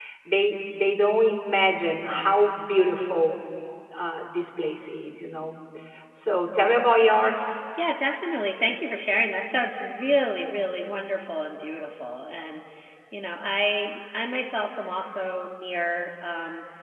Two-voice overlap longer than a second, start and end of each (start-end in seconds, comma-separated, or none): none